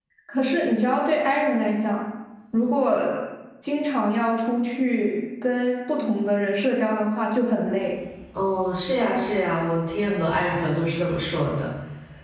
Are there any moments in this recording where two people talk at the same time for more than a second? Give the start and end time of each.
none

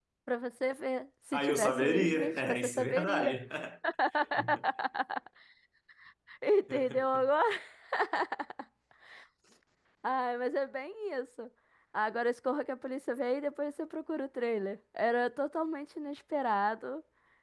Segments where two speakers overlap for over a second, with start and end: 1.3-3.4

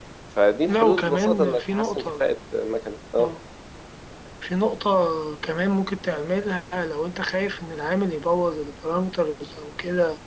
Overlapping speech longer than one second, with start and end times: 0.7-2.2

